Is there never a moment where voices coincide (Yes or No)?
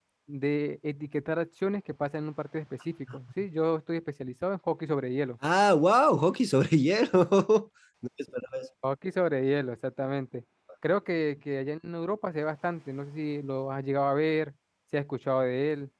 Yes